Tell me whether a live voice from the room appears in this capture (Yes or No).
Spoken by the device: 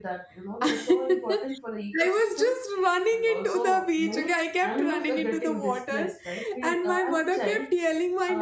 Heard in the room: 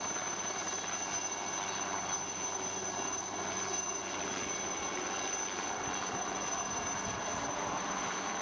No